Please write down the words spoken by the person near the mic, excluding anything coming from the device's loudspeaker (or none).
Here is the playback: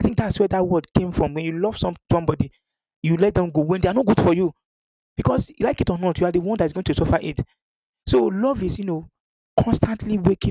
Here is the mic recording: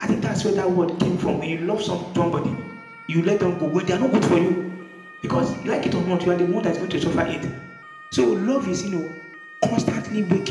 none